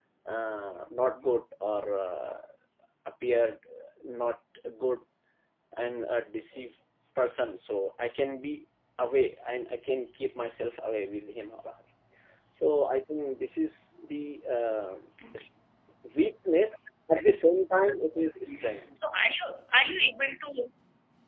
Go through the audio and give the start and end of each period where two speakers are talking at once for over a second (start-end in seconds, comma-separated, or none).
none